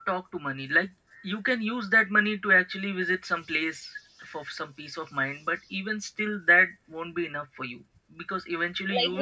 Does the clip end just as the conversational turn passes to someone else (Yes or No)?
Yes